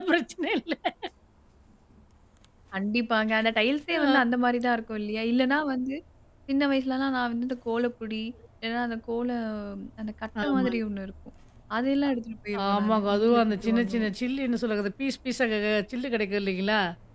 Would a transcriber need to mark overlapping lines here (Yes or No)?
Yes